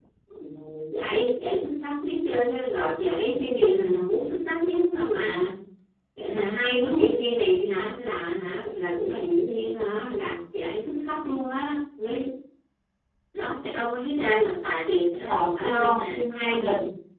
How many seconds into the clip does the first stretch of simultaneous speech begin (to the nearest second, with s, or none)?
15 s